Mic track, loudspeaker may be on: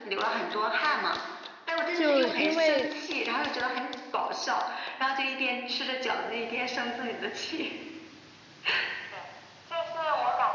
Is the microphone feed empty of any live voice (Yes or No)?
No